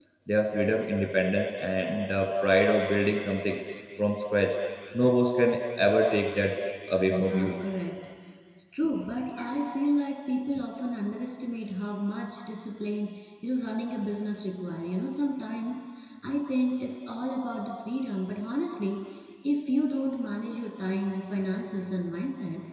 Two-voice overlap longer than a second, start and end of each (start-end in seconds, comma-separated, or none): none